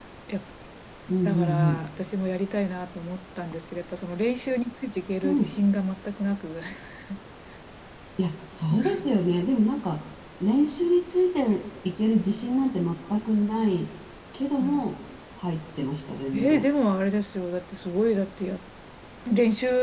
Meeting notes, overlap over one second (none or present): none